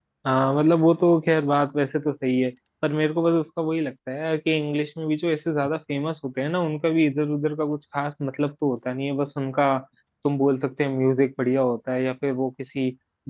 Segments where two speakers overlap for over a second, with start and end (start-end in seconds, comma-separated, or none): none